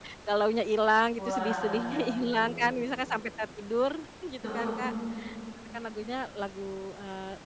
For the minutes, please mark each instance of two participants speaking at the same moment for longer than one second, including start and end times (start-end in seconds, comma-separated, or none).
1.2-2.7